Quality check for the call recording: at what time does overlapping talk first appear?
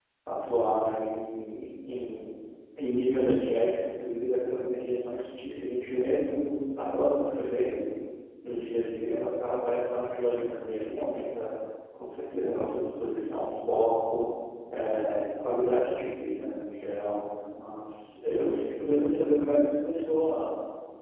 none

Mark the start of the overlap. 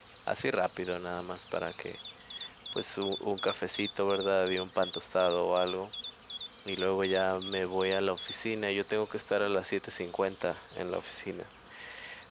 none

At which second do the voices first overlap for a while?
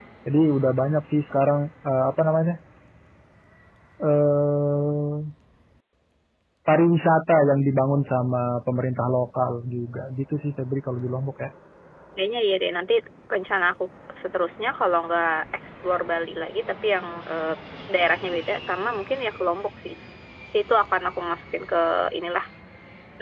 none

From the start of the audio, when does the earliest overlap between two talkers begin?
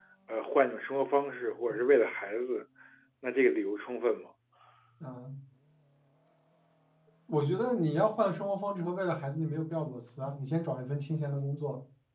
none

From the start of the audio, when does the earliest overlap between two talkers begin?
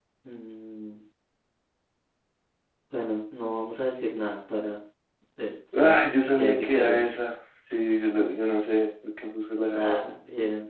5.7 s

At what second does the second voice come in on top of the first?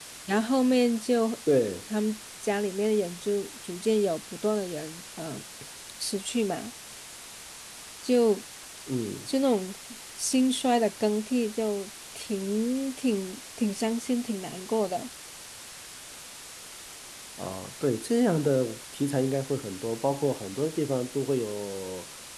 none

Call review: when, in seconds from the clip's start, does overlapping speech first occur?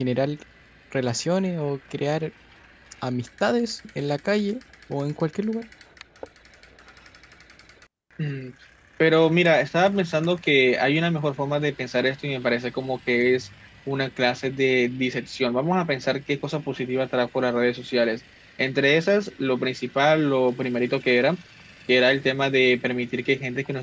none

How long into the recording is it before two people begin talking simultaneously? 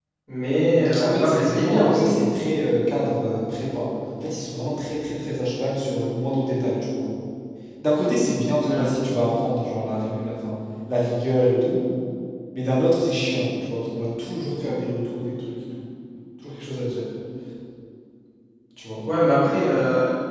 0.9 s

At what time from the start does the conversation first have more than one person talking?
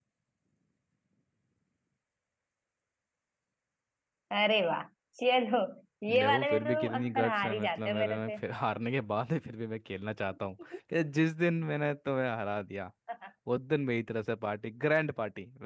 6.2 s

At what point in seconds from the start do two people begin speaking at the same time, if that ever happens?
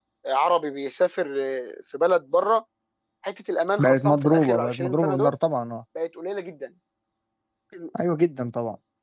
3.8 s

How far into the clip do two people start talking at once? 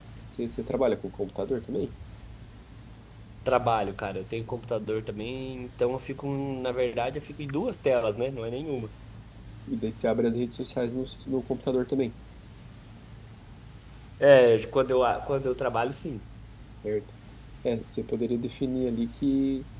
none

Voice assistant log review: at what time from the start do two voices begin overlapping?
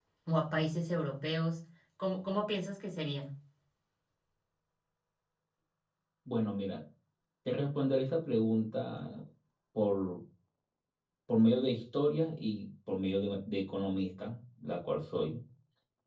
none

